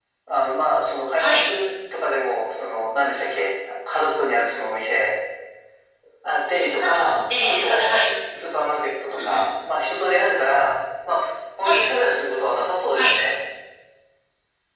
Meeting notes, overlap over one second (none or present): present